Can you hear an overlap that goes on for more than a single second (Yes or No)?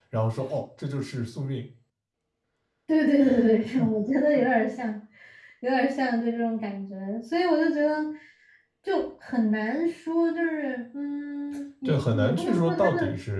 Yes